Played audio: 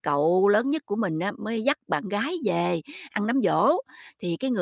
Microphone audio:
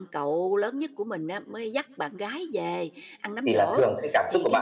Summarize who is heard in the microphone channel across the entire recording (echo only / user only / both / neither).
both